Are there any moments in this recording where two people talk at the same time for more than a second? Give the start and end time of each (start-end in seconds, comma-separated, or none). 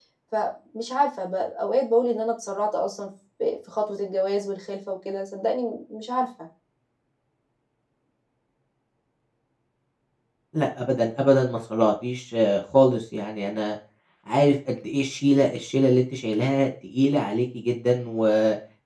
none